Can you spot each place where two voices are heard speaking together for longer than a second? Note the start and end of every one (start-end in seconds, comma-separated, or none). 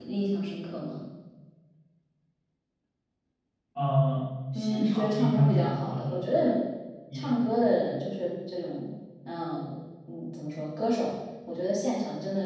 4.5-6.2